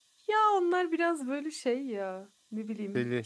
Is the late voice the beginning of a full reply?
No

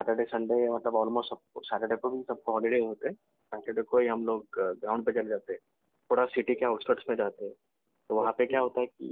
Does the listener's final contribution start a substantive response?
No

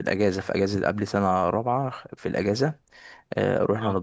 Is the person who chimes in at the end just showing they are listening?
Yes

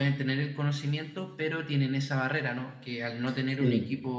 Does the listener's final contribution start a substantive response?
No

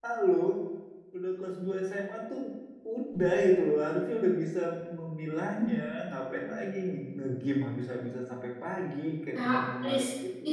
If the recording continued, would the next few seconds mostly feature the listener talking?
Yes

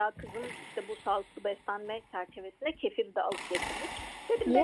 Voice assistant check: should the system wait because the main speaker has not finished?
Yes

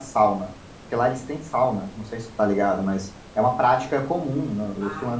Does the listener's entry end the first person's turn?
No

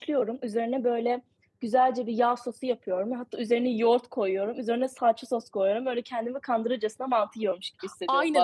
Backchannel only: No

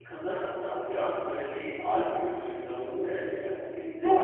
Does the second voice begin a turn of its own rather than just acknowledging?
Yes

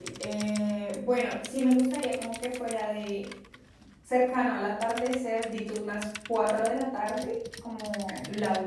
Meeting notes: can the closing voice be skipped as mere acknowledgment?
Yes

